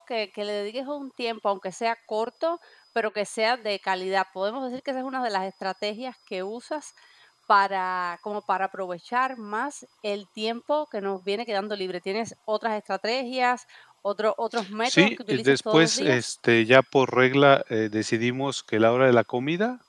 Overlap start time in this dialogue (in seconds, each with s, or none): 14.8 s